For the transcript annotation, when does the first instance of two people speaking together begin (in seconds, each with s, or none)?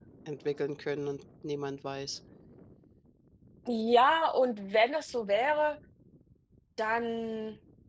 none